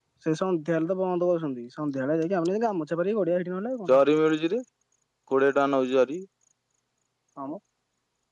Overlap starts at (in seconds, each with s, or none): none